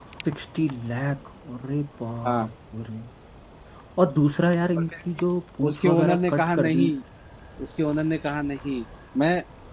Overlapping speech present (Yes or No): Yes